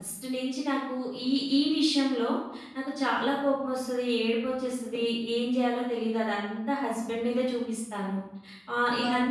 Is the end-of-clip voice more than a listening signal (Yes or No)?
No